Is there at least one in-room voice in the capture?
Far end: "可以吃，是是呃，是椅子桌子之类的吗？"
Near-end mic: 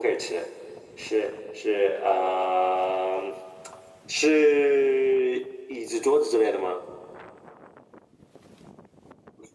No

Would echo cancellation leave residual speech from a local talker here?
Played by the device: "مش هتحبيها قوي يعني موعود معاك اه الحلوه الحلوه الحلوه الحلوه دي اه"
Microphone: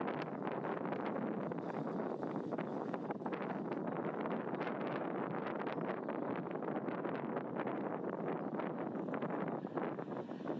No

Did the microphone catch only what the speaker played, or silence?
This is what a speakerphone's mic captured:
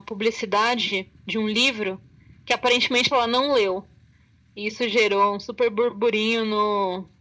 Yes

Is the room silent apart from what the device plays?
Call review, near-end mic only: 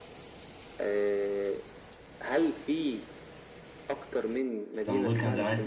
No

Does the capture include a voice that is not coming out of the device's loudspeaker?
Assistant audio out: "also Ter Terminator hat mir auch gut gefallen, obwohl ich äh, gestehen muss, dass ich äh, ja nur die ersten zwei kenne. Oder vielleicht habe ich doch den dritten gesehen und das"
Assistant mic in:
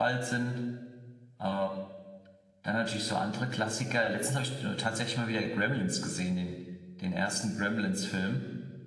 Yes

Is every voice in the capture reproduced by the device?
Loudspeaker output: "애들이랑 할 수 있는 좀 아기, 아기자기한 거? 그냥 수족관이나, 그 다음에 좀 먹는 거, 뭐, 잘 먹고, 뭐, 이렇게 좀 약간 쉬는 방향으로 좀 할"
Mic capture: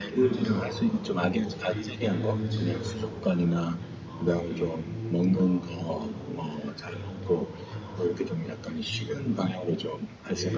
No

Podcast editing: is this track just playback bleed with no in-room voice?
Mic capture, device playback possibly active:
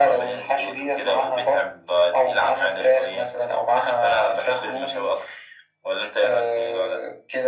Yes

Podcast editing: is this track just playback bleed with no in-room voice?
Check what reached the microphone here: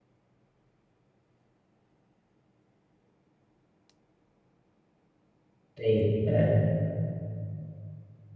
No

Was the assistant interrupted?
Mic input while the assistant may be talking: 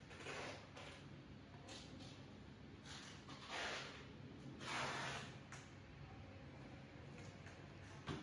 No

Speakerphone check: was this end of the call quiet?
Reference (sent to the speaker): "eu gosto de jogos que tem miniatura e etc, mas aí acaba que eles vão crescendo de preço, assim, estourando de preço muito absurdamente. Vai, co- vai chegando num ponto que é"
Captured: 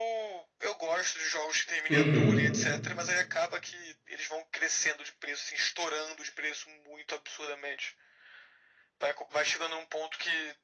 No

